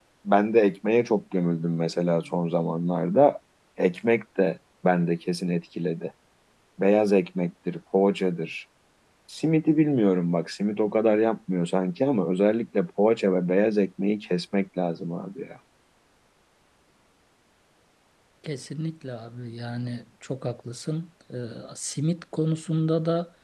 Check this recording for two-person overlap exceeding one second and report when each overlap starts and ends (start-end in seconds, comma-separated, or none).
none